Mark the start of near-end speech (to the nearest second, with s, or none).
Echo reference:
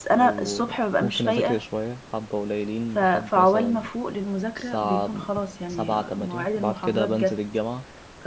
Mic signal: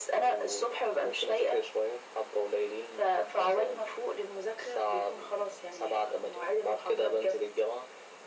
none